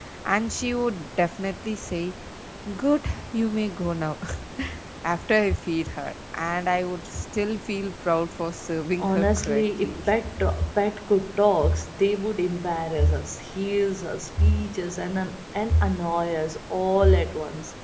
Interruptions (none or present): present